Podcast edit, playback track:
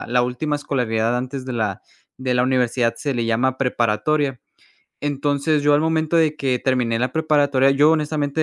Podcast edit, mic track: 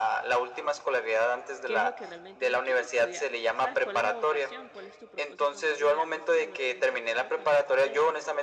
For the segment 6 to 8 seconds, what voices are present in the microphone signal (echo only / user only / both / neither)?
both